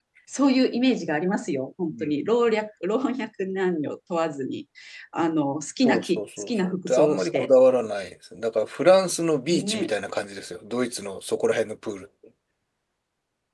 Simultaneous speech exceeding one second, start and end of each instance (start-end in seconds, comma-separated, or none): 5.8-7.5